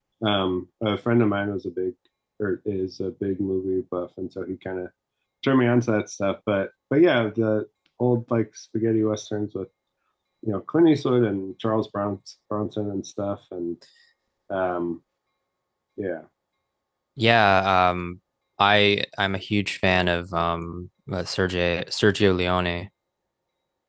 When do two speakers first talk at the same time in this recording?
none

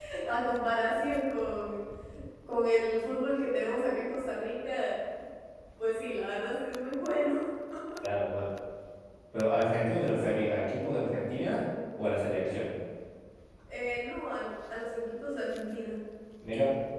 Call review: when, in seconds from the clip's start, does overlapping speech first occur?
none

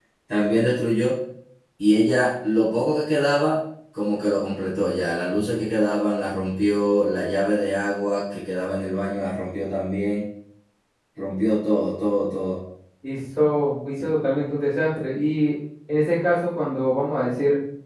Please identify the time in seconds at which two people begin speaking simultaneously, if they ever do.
none

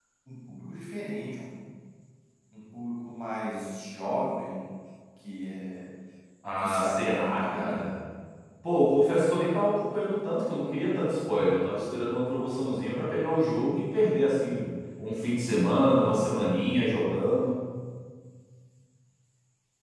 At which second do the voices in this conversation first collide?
6.6 s

